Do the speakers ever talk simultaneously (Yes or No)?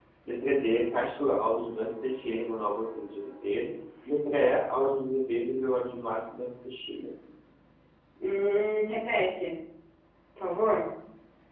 No